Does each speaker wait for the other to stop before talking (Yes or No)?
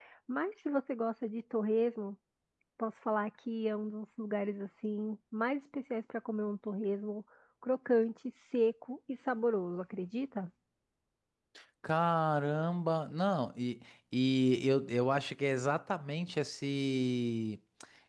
Yes